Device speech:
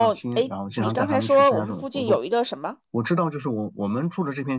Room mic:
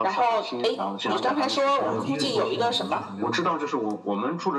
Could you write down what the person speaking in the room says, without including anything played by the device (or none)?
然后第一个星期呢，我们就是没有管，